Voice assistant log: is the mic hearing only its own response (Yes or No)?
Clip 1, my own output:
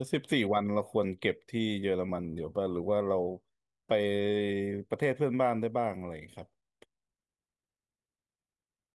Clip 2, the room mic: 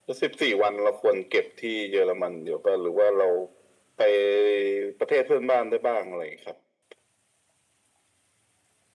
Yes